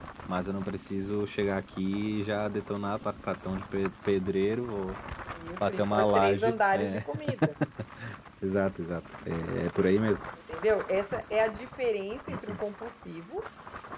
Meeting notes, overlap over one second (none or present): present